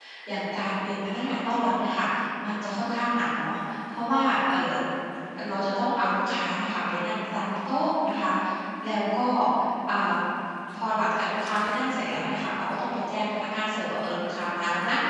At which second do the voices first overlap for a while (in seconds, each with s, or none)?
none